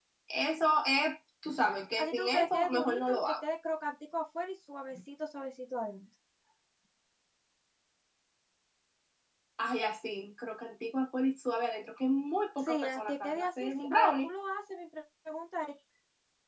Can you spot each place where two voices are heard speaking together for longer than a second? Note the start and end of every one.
1.9-3.4, 12.7-14.3

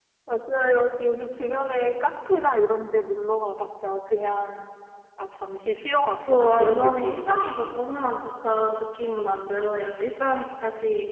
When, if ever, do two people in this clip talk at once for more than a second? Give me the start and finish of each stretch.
6.3-7.8

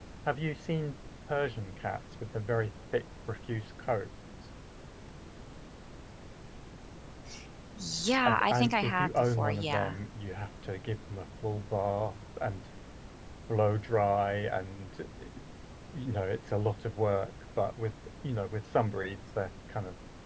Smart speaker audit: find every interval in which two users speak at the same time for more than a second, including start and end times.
8.2-9.9

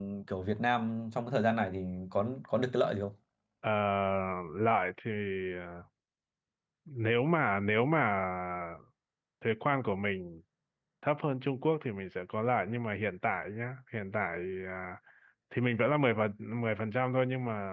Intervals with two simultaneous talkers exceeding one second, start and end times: none

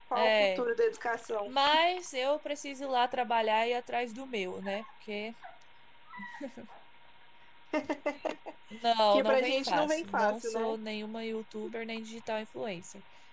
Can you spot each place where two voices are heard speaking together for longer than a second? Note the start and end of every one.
9.1-10.8

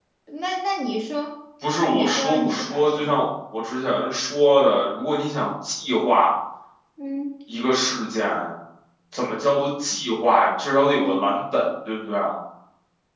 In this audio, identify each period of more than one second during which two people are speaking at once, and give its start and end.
1.9-3.1

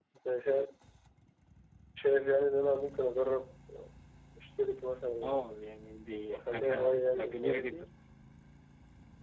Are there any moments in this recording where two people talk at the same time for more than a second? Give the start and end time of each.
6.3-7.8

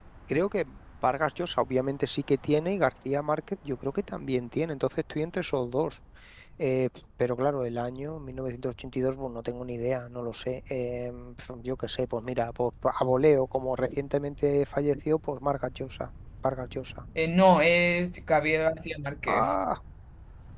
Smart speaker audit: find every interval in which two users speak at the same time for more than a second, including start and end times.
none

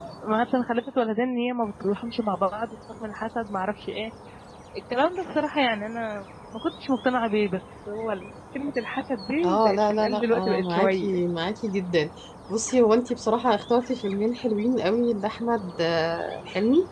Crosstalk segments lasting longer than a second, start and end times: 9.4-11.1

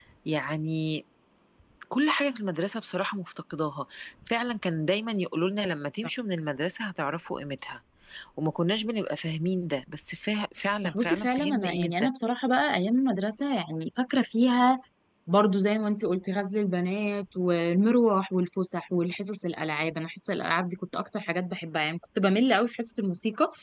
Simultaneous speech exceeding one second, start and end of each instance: 10.8-12.1

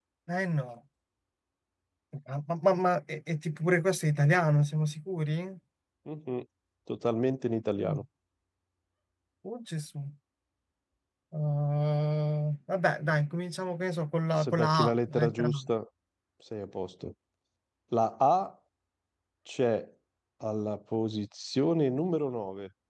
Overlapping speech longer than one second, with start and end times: 14.4-15.6

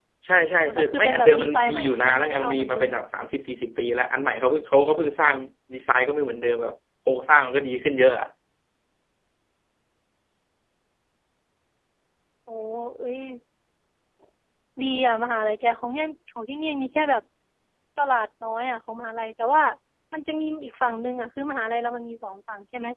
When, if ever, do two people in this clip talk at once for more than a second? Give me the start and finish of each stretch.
0.6-2.9

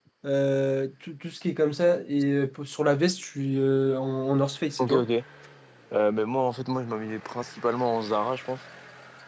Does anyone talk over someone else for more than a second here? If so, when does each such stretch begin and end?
none

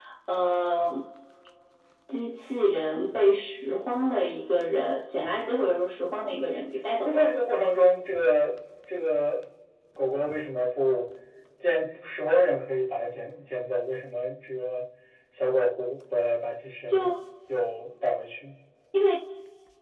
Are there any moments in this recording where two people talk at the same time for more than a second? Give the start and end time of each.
none

